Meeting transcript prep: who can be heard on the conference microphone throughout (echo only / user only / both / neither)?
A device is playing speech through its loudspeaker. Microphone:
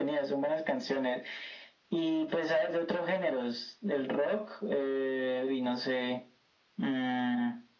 echo only